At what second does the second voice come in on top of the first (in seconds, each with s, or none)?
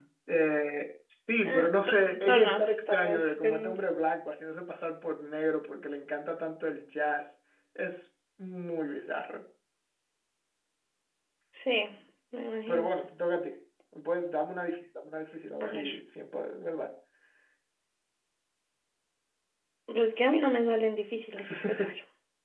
1.4 s